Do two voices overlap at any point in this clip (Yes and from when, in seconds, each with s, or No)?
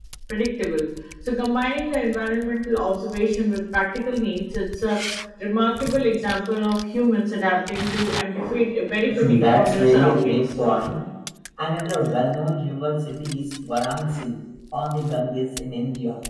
Yes, from 9.1 s